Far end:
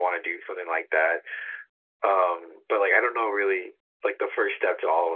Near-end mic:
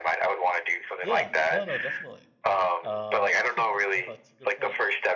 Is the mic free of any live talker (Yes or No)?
No